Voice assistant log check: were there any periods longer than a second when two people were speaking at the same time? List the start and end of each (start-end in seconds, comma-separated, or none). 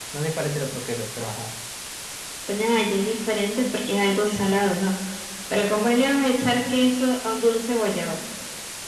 none